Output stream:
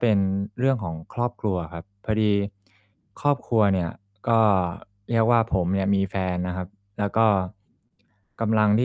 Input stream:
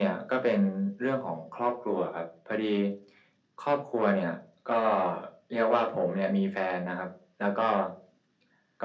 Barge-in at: none

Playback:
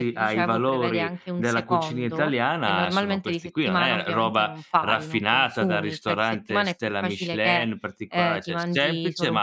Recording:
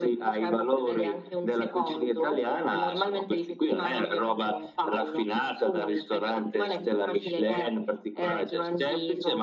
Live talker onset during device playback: none

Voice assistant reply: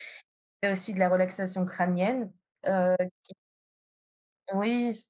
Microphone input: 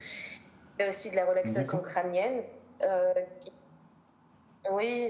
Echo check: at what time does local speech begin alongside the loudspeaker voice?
1.4 s

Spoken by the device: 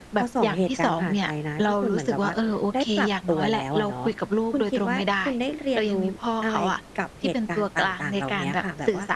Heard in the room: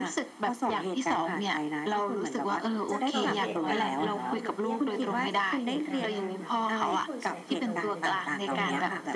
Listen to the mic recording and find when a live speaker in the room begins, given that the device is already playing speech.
2.9 s

